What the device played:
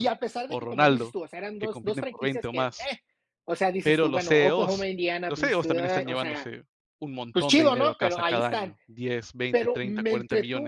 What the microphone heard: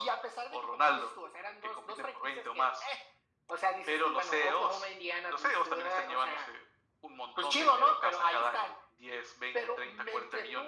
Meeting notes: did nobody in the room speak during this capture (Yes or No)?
Yes